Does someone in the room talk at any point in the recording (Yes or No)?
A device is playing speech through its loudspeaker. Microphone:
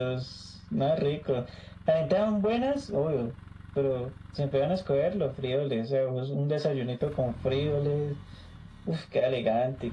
No